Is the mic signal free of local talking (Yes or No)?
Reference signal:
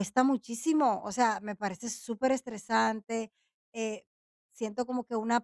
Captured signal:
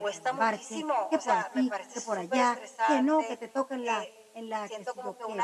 No